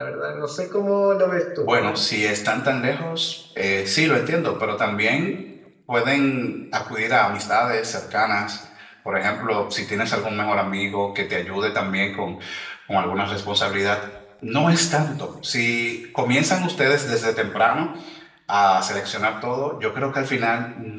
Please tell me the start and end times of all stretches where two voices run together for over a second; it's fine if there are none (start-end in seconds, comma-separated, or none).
none